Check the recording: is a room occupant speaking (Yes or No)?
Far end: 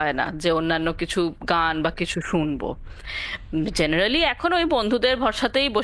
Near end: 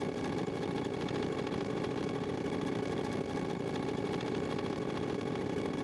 No